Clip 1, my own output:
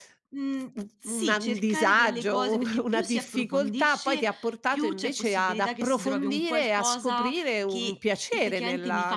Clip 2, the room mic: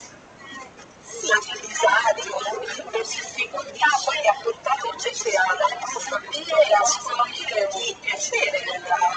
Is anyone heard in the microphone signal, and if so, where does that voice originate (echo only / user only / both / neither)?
echo only